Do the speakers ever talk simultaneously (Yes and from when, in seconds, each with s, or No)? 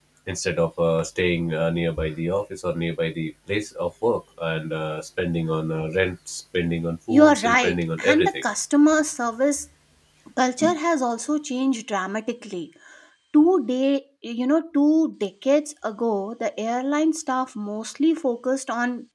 Yes, from 7.1 s